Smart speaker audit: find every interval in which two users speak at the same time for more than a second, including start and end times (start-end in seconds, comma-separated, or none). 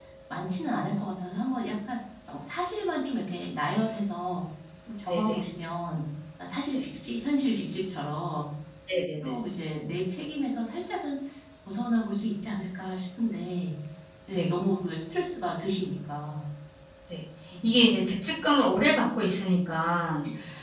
none